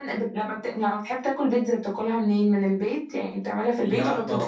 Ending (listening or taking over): taking over